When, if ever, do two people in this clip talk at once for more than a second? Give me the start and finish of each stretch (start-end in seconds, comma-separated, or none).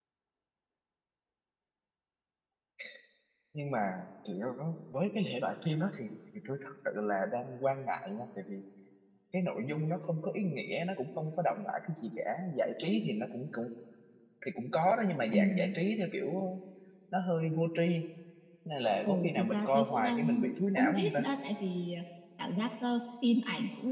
19.0-21.2